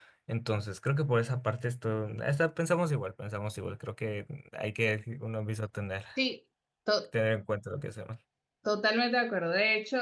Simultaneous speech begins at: none

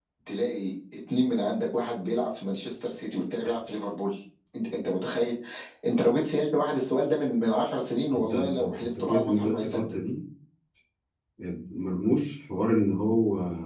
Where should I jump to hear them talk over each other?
8.1 s

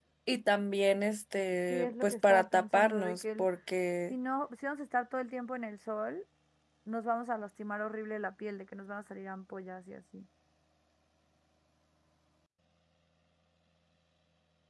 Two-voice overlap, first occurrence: 1.7 s

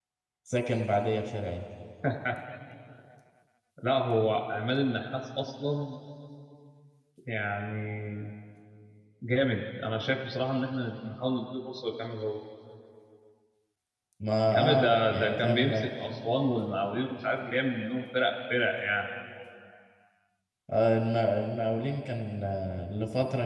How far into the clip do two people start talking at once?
14.5 s

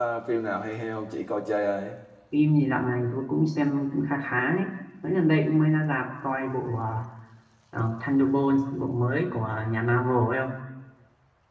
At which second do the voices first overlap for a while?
none

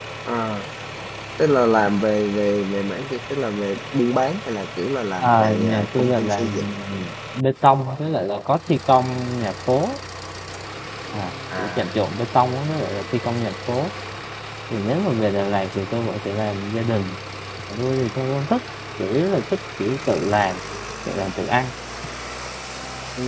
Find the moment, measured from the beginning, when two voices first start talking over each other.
5.2 s

